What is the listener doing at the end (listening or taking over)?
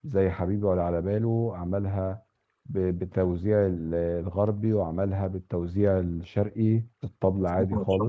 taking over